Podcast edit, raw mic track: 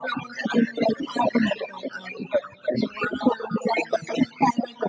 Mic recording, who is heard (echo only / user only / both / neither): echo only